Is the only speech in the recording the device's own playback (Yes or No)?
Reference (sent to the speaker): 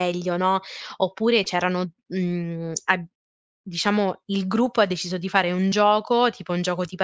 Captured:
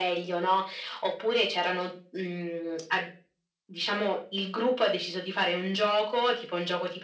Yes